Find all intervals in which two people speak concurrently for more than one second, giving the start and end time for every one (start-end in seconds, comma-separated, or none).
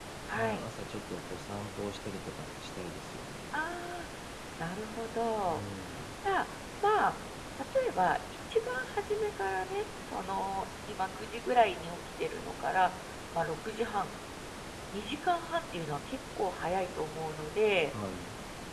none